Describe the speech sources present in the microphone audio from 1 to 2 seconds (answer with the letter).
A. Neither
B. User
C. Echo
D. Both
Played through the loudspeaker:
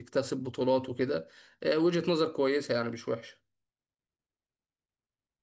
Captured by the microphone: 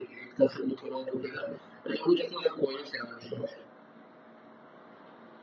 C